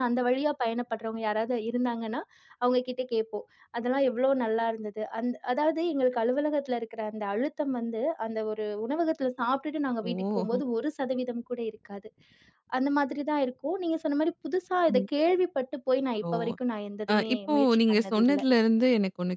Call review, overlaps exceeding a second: present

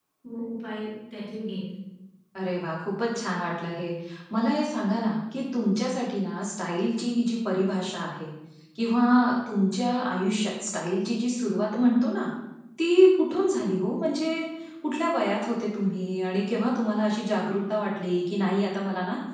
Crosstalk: none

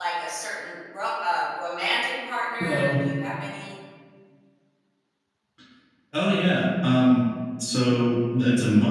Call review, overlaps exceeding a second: none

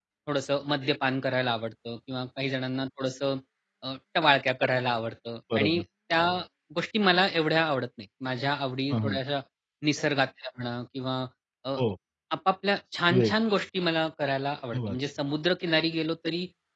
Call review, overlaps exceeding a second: none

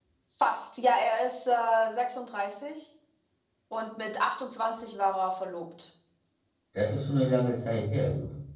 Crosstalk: none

